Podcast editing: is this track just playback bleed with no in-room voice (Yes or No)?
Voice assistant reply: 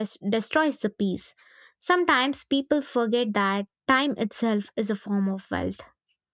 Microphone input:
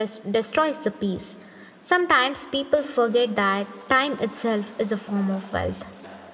Yes